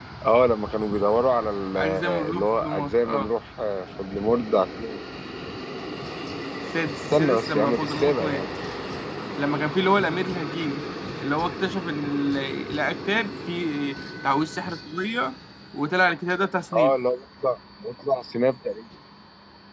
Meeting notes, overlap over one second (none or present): present